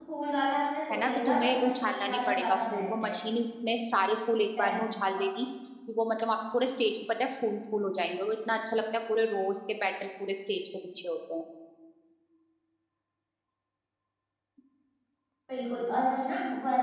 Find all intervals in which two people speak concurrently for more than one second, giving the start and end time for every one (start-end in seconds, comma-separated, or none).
0.9-3.1